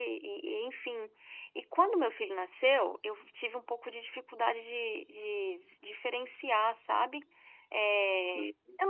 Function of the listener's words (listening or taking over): listening